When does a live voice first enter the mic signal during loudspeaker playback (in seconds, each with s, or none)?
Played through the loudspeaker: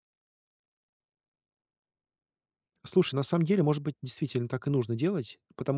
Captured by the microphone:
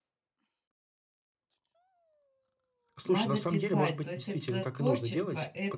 3.0 s